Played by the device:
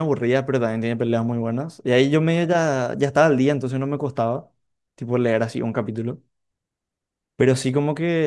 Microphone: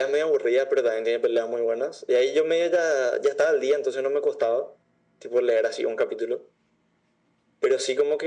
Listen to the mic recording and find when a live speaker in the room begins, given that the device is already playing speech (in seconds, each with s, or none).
none